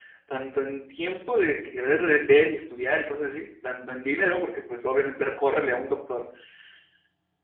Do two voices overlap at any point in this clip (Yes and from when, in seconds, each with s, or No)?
No